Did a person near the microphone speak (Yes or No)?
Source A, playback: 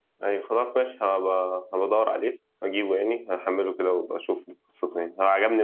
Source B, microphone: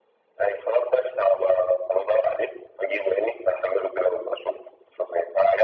No